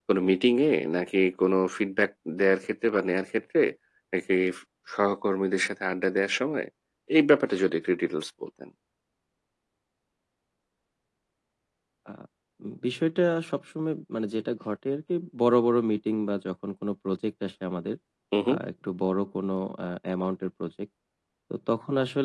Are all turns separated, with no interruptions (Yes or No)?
Yes